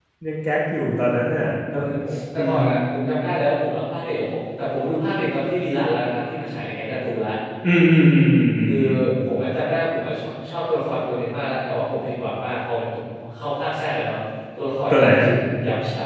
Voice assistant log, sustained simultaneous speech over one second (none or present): none